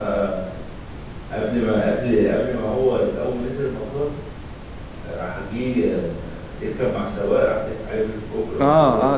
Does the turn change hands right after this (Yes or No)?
Yes